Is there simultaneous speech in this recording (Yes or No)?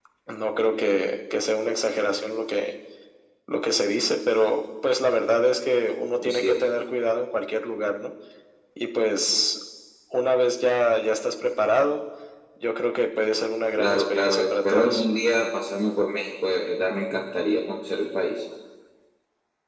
Yes